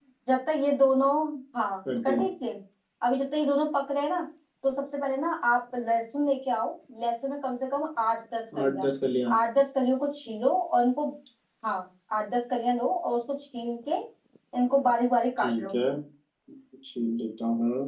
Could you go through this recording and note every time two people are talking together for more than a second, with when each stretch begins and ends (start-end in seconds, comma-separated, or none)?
none